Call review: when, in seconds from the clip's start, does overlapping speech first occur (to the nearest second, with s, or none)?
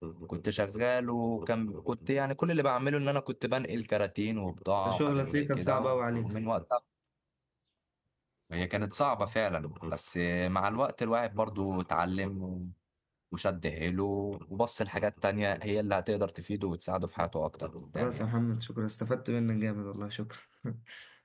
5 s